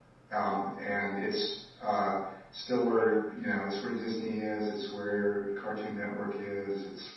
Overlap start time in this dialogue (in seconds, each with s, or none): none